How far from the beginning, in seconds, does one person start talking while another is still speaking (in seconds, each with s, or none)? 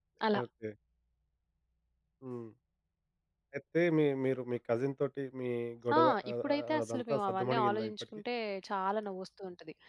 5.9 s